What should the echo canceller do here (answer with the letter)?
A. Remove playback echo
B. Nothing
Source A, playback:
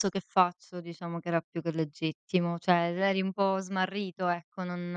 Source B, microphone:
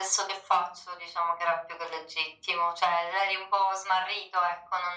A